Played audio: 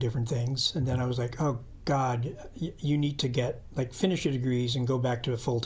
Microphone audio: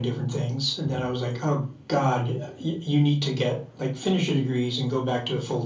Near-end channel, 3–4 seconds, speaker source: echo only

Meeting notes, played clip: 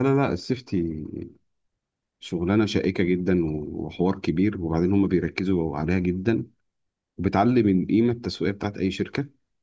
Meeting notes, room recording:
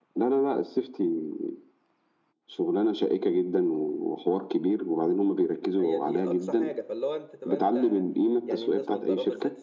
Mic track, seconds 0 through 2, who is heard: echo only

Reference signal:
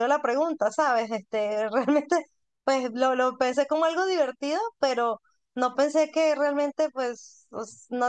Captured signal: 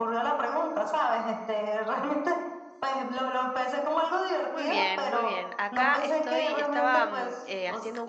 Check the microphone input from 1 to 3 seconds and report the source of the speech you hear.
echo only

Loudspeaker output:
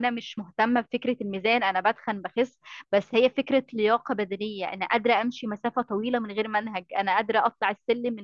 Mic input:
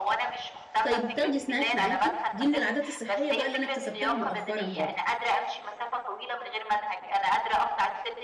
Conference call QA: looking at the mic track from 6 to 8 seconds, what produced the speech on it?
echo only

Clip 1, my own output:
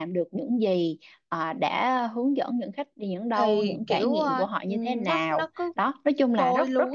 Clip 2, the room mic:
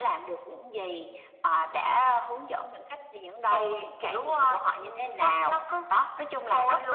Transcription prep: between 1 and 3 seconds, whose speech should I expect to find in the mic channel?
echo only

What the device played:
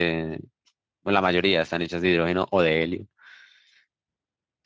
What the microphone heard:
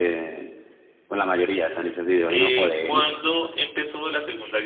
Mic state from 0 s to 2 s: echo only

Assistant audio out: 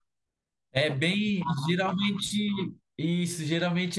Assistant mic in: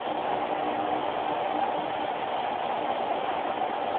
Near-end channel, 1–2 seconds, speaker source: neither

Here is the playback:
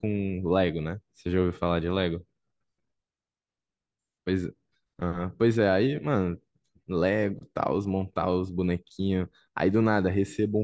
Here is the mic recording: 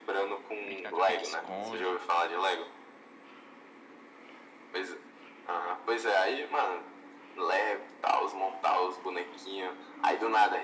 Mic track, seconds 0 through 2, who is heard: both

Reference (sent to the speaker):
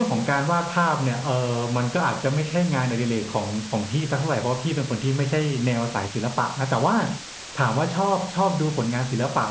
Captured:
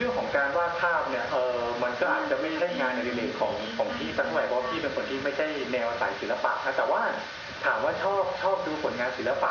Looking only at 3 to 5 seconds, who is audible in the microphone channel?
both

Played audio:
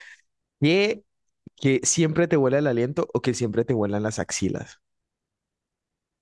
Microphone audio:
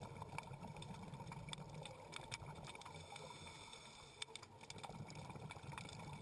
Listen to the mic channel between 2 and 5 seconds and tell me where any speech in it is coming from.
neither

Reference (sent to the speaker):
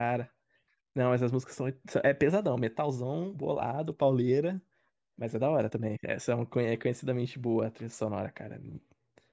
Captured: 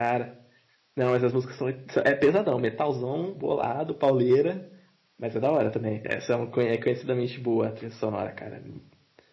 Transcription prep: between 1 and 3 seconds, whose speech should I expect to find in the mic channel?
echo only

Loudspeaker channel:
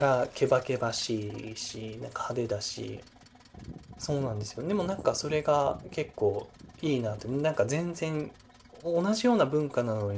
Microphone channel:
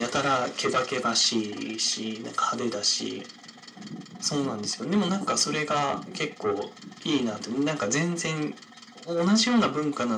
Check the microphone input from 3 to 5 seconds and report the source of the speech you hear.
echo only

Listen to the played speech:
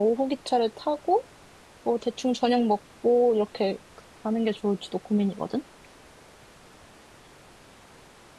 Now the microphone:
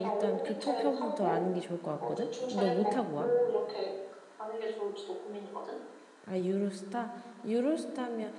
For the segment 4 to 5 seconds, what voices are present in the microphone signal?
echo only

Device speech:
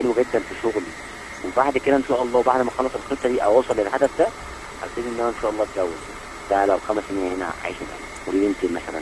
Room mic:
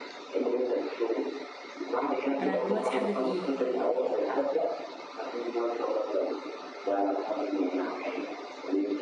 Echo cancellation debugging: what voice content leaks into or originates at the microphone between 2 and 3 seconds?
both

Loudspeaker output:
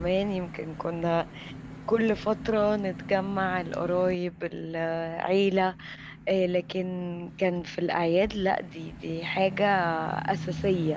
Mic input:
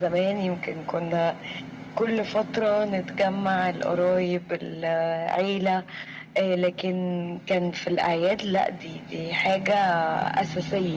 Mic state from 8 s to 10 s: echo only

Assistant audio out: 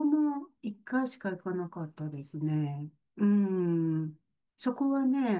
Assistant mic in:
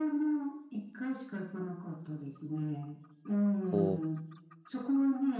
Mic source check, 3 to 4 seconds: both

